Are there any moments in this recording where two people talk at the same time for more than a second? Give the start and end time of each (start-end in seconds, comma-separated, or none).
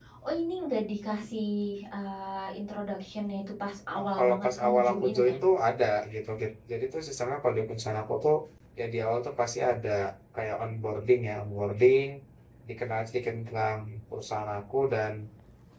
4.0-5.3